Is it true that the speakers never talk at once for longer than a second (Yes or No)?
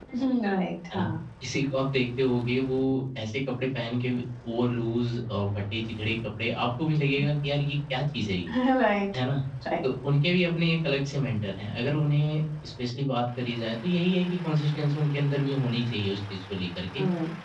Yes